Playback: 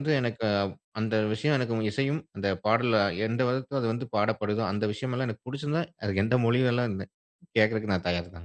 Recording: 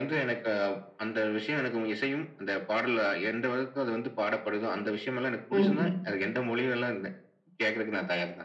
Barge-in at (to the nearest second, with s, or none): 6 s